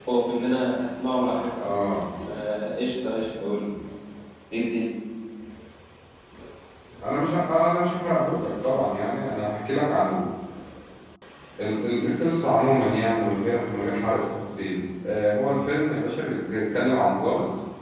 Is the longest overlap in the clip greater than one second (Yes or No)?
No